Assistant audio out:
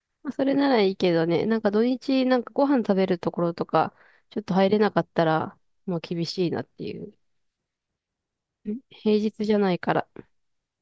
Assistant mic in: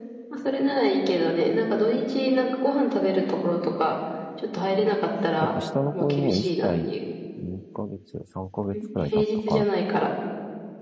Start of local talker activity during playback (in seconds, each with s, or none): 5.4 s